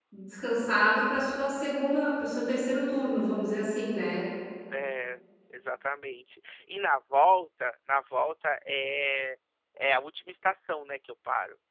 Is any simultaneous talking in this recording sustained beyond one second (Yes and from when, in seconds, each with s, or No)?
No